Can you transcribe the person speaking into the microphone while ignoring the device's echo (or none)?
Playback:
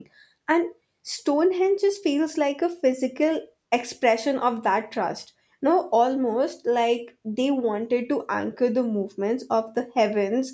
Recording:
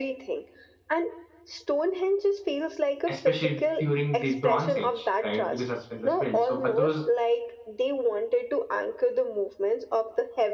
especially during the Bronze Age, right? Because that's when it was built. So for those